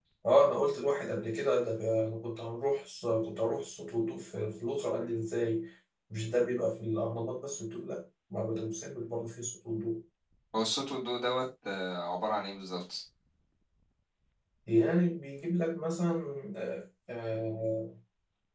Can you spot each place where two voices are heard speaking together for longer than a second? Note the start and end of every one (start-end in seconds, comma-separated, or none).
none